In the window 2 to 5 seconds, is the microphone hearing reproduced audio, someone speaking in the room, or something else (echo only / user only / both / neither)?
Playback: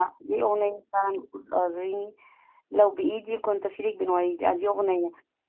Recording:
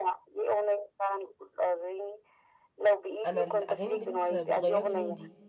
both